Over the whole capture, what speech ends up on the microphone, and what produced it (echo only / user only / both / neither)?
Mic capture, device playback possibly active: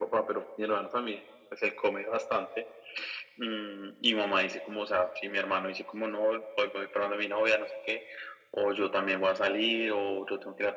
echo only